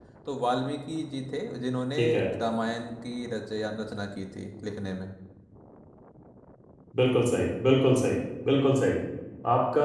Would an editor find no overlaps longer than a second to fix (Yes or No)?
Yes